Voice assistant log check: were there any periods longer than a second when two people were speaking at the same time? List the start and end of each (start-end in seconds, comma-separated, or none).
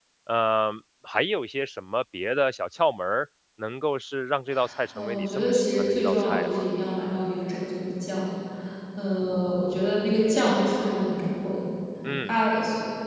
5.0-6.5